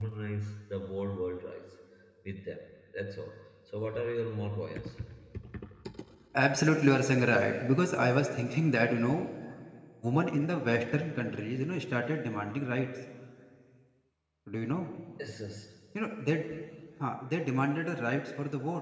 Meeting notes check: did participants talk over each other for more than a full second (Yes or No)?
No